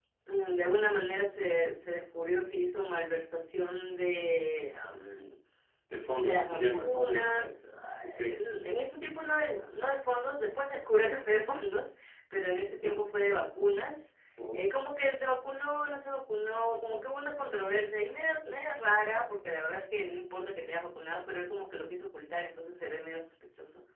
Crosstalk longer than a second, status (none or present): present